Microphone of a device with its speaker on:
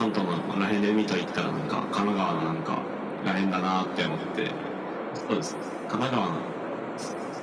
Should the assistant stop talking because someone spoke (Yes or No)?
No